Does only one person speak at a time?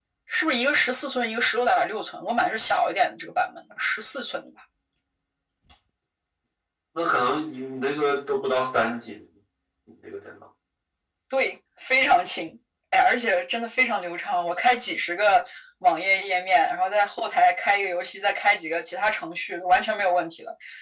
Yes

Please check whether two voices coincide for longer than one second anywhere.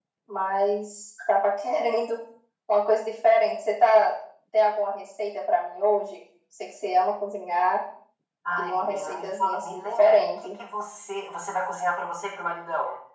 Yes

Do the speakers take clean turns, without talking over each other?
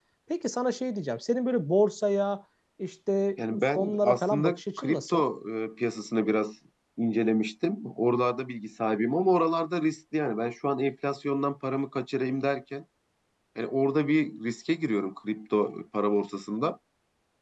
No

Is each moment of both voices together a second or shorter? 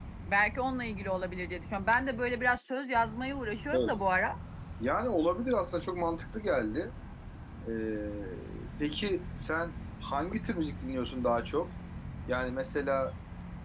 Yes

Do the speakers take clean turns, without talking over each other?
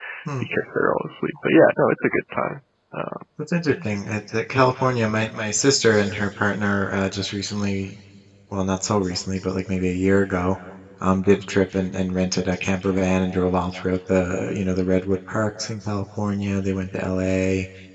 Yes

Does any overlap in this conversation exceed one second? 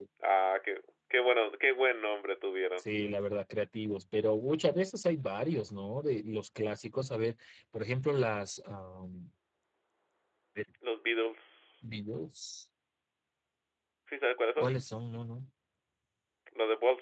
No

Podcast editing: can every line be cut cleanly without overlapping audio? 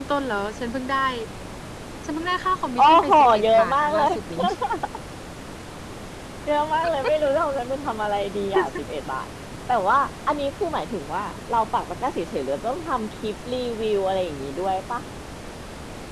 No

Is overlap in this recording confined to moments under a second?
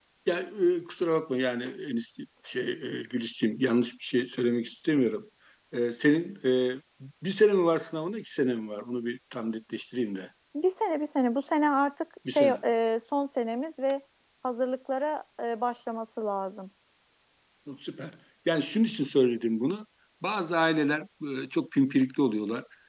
Yes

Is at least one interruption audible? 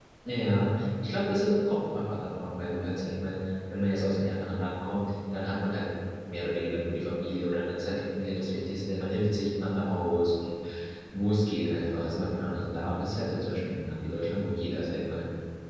No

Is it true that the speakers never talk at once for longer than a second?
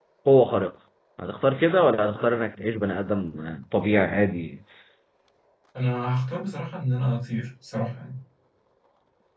Yes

